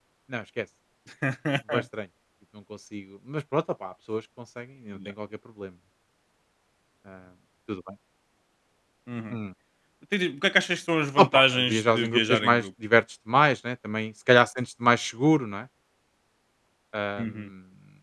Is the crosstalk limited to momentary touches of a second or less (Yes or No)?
No